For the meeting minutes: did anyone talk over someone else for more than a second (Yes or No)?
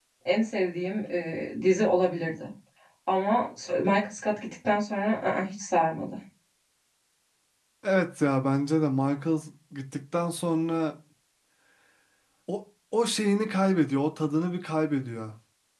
No